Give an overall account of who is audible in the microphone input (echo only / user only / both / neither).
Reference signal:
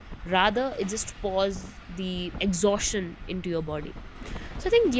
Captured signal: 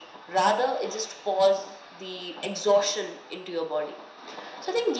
echo only